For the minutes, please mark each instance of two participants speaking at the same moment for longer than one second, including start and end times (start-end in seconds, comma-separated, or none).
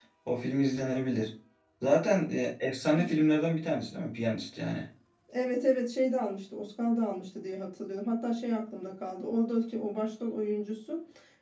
none